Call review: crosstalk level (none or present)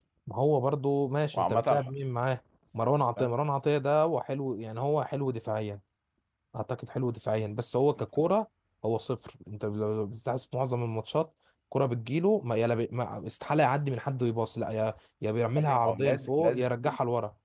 present